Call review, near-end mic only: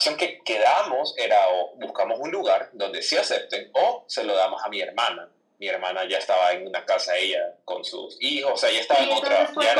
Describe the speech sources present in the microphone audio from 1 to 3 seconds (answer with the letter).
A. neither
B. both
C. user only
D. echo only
D